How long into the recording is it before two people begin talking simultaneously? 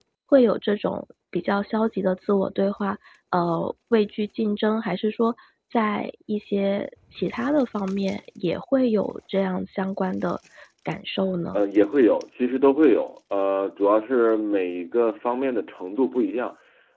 none

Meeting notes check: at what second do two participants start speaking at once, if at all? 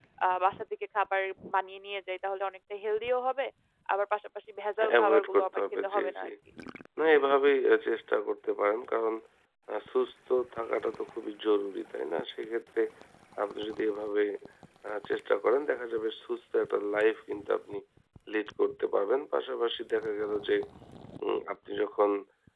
4.8 s

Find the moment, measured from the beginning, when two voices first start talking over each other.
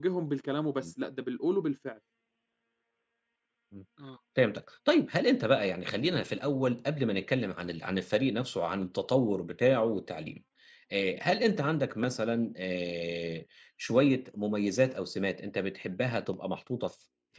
none

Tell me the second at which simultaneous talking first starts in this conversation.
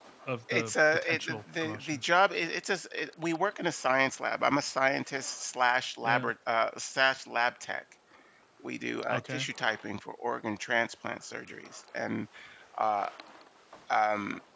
0.5 s

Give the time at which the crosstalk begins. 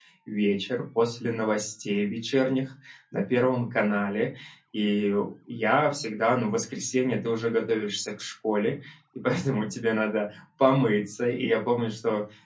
none

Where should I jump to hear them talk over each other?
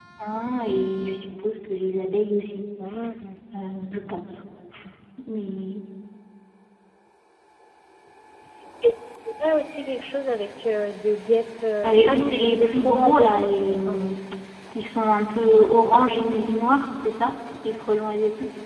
11.8 s

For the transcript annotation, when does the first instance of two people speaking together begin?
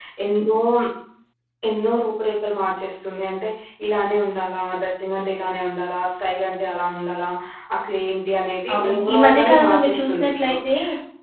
8.7 s

